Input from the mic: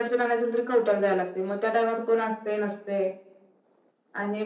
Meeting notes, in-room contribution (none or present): none